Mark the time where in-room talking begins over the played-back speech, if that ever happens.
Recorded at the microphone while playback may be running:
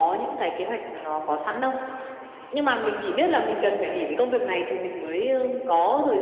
none

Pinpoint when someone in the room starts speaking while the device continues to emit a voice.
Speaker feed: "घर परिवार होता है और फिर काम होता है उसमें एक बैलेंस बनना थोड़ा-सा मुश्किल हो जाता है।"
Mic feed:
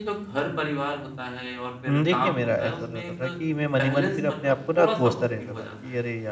1.9 s

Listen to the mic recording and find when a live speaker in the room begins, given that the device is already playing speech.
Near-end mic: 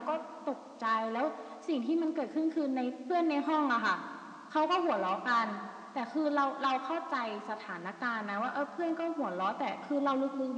none

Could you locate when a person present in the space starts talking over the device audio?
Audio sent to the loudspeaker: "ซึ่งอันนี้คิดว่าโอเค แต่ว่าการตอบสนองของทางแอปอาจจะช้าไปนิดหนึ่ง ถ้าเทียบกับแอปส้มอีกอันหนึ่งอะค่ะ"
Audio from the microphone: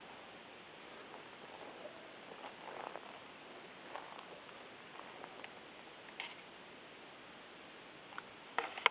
none

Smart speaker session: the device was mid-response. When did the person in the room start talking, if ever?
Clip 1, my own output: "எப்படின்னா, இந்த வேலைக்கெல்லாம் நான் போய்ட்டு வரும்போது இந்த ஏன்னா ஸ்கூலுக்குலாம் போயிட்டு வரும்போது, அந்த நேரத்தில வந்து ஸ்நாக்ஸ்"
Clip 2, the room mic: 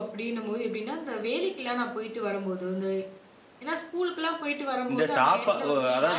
4.9 s

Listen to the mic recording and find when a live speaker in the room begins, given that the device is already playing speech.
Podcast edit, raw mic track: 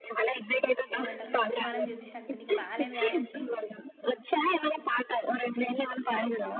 1.0 s

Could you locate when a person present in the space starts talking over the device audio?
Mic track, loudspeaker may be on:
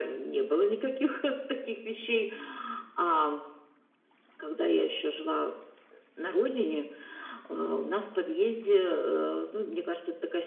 none

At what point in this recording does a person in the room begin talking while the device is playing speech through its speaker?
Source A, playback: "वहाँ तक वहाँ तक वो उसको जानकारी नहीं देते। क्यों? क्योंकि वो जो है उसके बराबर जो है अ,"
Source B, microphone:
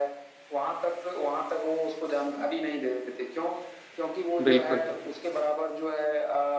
4.4 s

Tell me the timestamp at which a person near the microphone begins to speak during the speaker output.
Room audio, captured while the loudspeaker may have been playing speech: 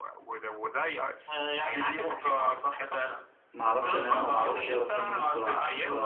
3.5 s

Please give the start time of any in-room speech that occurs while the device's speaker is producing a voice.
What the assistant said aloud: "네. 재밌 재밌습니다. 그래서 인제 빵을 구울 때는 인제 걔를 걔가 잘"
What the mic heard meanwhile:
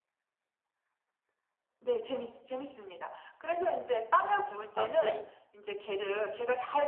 4.7 s

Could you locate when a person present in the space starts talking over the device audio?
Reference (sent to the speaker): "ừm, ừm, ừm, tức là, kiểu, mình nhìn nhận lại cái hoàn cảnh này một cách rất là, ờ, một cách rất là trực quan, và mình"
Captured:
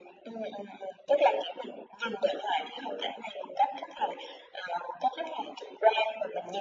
none

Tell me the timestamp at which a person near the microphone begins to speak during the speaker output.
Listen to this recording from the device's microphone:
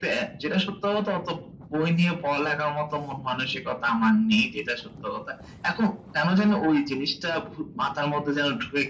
none

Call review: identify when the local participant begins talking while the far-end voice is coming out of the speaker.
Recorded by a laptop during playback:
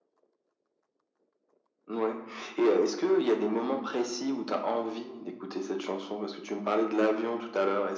none

